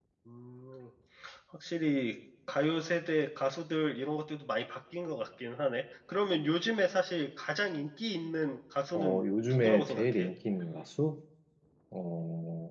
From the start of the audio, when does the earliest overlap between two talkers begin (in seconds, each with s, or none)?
8.9 s